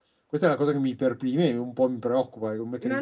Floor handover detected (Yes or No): Yes